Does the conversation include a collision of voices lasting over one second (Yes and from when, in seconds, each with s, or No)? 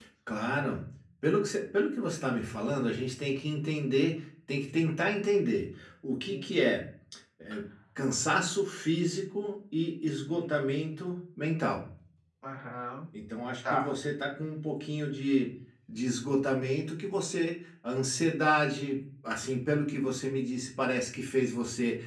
No